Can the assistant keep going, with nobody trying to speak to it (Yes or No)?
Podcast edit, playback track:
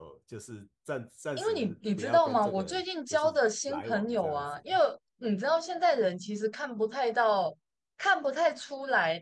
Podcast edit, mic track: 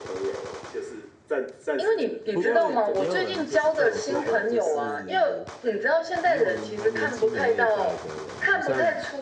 No